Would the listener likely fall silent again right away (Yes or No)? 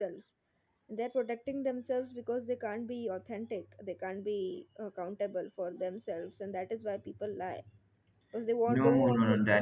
No